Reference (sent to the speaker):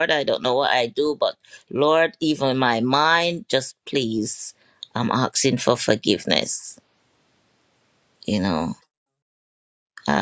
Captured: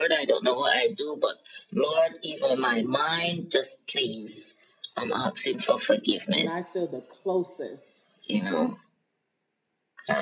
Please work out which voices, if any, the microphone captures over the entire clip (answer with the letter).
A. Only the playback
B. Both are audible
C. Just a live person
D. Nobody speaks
B